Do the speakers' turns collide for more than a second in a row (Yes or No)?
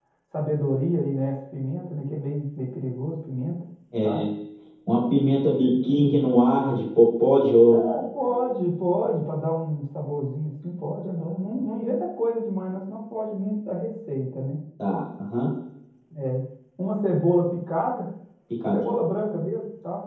No